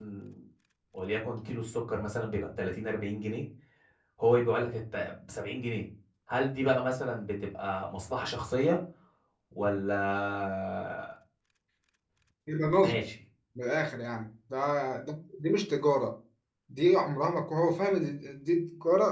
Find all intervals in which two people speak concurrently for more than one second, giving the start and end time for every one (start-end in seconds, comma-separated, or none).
none